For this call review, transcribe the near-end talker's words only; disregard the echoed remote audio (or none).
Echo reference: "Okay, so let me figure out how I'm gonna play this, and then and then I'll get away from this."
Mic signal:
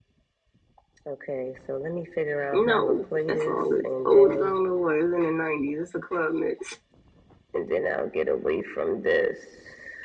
No, that song is old as I don't know what. It's in the nineties. It's a club mix.